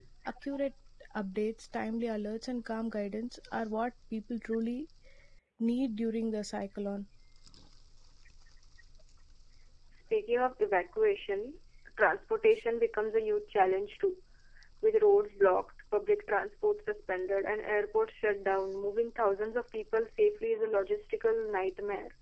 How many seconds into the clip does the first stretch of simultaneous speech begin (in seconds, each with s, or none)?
none